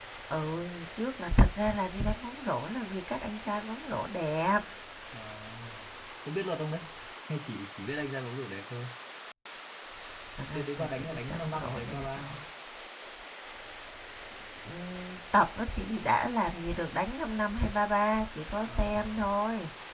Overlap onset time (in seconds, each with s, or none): 10.5 s